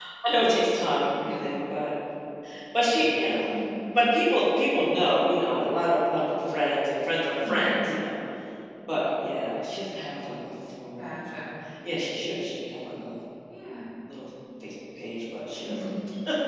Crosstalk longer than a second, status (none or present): none